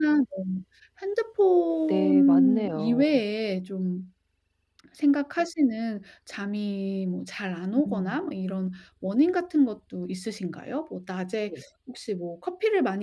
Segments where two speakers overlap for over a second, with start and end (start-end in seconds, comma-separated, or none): 1.9-3.2